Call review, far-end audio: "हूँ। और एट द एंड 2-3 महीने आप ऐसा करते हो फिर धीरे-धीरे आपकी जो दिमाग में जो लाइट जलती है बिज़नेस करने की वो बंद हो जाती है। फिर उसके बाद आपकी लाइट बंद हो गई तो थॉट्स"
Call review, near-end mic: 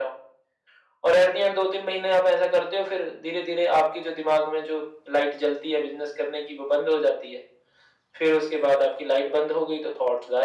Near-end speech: none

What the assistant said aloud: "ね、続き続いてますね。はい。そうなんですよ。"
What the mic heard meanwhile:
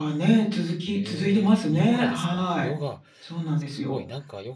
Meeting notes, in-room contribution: present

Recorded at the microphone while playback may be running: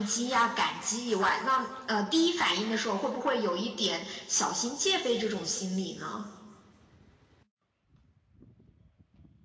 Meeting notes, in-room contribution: none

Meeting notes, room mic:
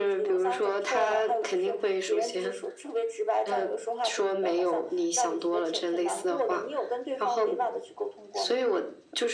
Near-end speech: none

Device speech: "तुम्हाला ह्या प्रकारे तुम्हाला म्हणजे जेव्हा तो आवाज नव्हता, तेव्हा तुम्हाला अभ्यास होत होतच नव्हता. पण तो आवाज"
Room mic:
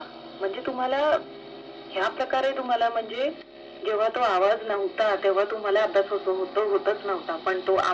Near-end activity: none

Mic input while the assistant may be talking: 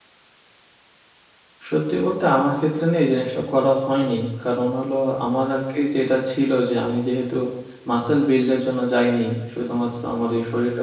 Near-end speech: present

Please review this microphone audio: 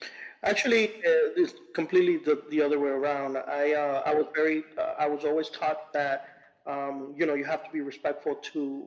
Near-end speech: none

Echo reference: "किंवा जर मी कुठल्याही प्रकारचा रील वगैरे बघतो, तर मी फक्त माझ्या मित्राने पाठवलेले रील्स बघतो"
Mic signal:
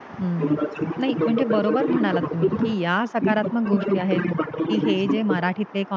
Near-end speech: present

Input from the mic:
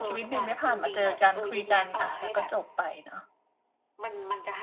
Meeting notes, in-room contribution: present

